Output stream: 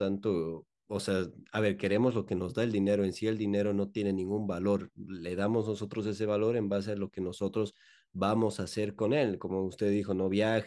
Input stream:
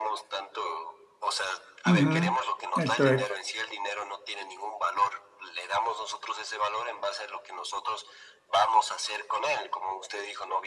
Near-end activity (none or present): present